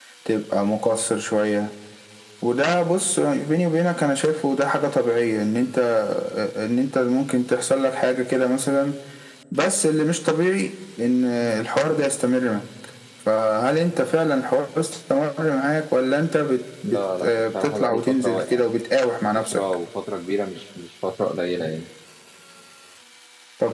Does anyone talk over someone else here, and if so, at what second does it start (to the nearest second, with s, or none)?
17 s